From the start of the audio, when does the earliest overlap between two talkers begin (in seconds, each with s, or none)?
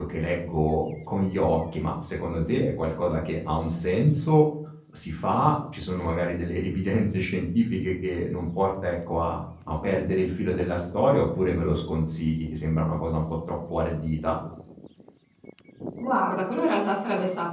none